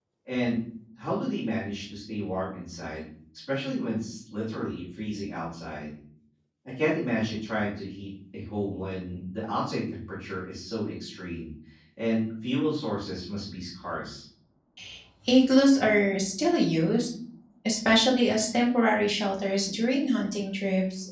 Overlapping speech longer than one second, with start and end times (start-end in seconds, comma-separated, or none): none